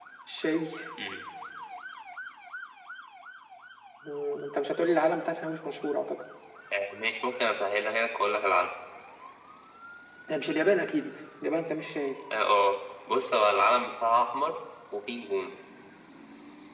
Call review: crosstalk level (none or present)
none